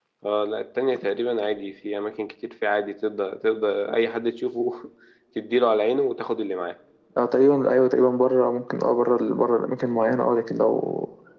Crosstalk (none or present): none